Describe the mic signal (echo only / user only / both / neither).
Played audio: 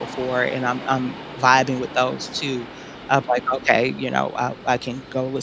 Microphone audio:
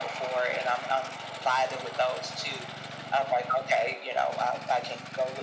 echo only